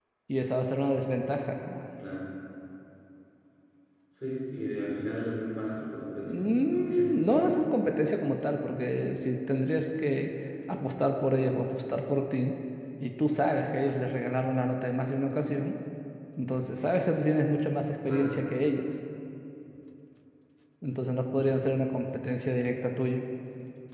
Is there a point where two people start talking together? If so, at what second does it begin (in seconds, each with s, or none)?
6.2 s